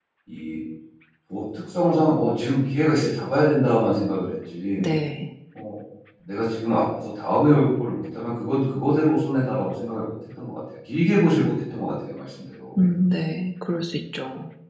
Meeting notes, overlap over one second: none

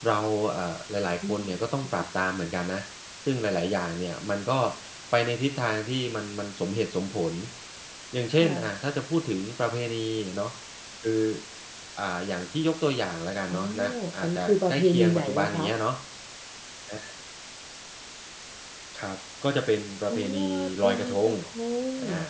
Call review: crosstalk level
present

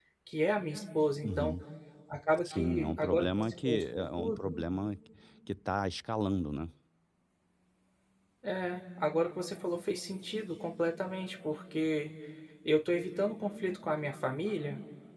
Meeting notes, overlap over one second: present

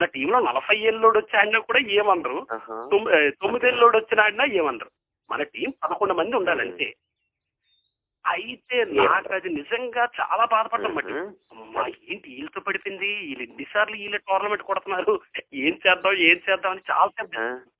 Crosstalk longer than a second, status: none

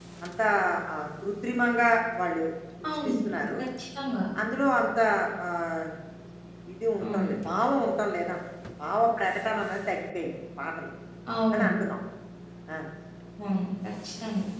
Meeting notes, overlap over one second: none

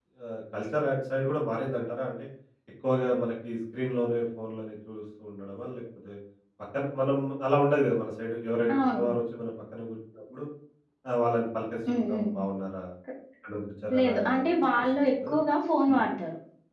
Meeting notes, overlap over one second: present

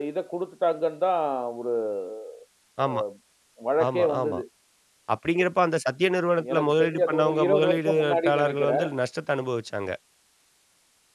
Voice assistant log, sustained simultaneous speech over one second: present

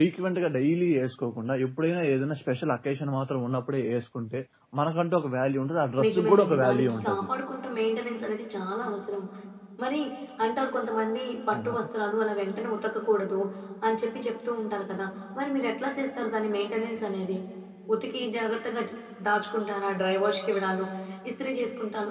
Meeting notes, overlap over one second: present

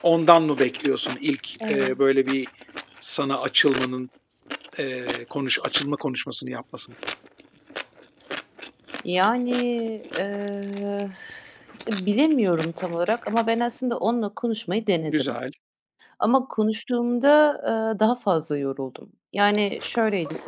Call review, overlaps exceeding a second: none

